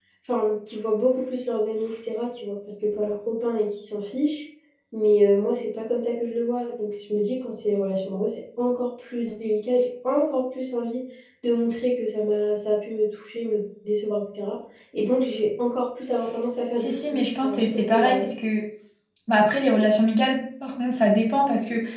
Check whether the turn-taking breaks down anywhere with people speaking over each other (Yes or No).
Yes